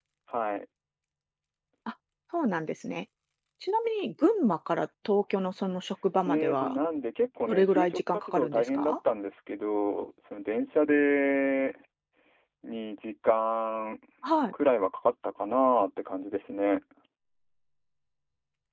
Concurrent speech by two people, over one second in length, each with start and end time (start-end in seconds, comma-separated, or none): 7.5-8.9